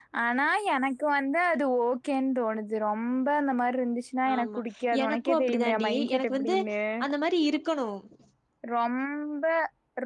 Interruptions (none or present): present